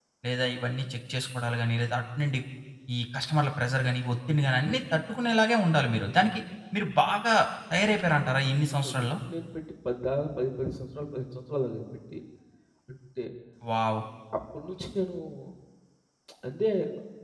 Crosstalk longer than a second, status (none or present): none